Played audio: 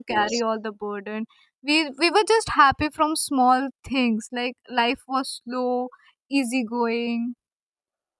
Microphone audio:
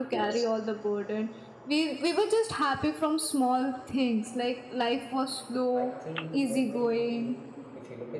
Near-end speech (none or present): present